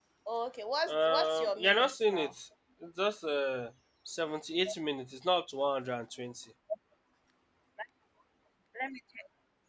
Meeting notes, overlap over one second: present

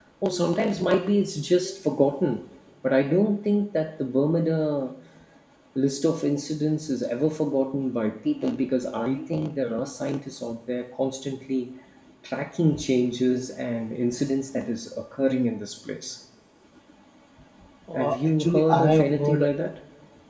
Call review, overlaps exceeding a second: present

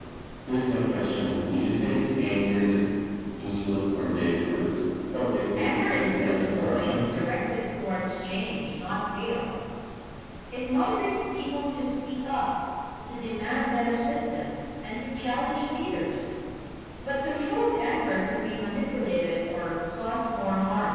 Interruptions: present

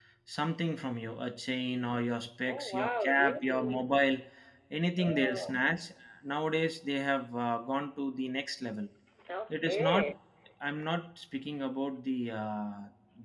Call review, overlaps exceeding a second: present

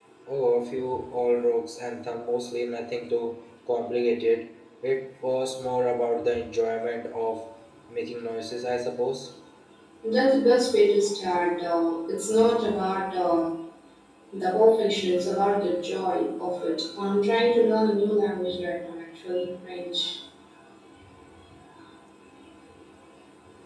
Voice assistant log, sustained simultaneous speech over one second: none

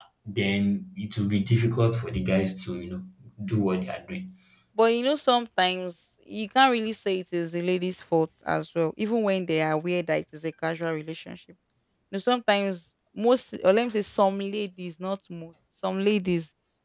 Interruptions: none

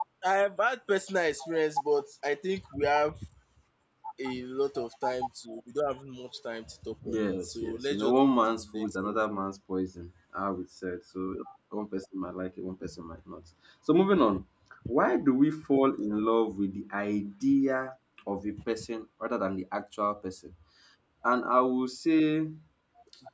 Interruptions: present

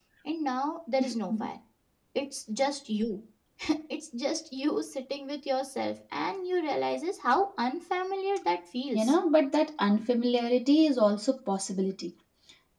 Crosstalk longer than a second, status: none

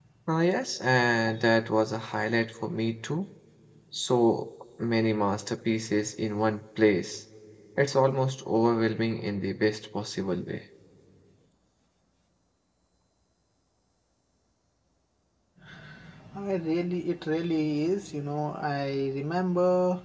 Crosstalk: none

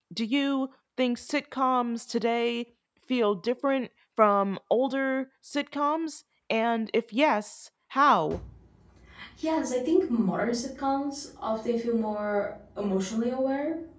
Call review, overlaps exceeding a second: none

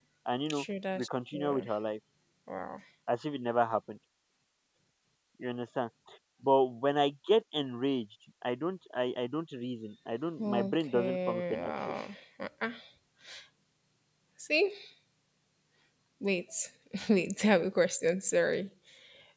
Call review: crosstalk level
present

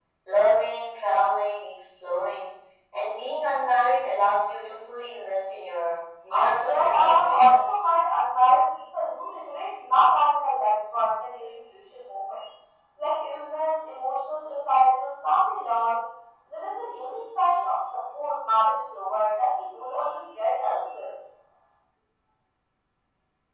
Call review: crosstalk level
present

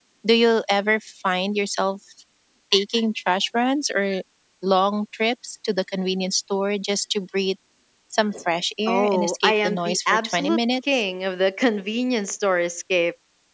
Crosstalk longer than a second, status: present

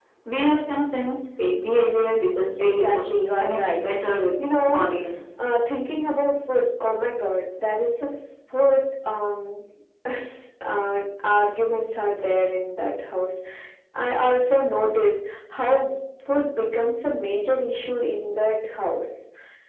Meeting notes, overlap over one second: present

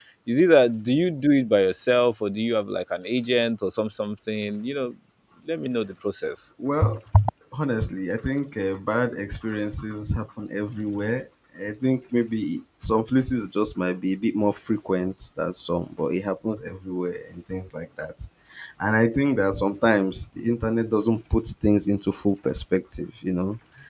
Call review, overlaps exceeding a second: none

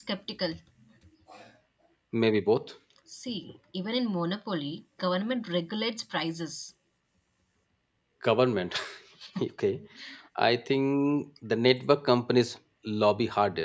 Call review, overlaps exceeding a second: none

